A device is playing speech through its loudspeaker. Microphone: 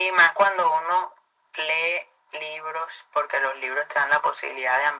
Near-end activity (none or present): none